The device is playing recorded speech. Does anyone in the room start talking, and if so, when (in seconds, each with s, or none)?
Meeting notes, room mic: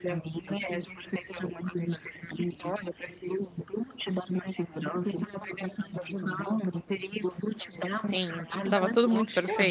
7.9 s